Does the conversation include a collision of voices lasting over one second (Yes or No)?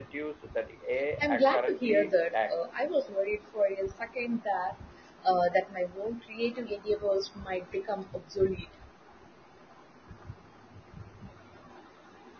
Yes